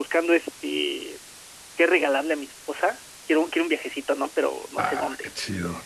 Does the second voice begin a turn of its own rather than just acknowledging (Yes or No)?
Yes